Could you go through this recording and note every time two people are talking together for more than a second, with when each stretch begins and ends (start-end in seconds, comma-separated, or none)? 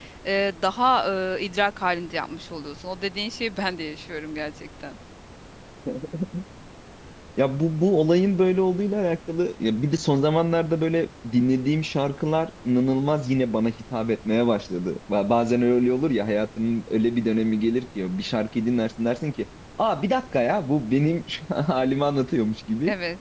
none